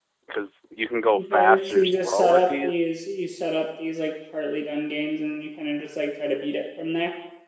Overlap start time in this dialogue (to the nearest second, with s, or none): 1 s